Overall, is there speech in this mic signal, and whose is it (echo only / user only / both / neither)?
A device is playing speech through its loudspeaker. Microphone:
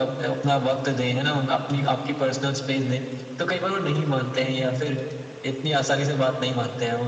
echo only